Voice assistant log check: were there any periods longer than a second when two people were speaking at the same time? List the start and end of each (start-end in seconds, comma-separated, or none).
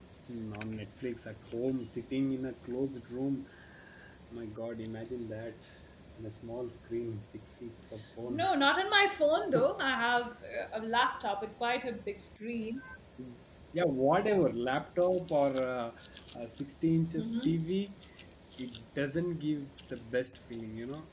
none